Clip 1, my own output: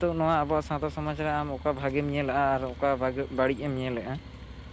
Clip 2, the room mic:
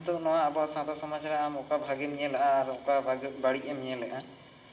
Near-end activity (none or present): none